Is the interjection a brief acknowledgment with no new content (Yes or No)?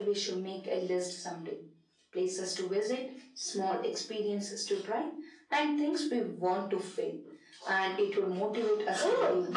No